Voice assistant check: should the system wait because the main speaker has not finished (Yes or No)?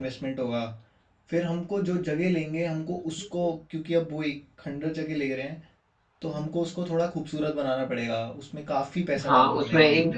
No